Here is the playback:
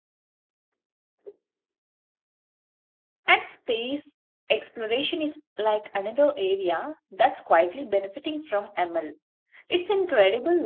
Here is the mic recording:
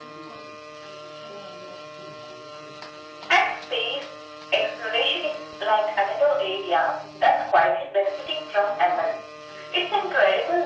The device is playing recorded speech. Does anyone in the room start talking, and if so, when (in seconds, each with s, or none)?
none